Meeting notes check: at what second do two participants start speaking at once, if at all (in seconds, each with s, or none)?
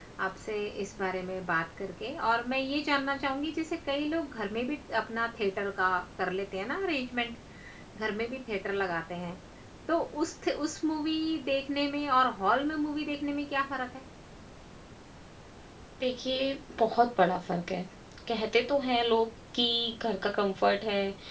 none